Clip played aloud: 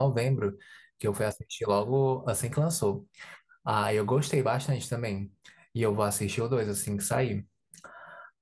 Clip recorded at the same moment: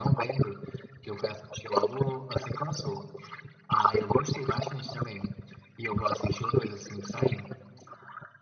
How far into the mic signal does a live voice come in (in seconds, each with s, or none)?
none